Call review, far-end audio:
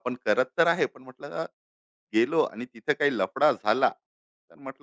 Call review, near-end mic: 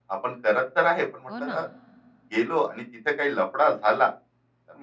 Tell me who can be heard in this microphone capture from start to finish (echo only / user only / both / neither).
both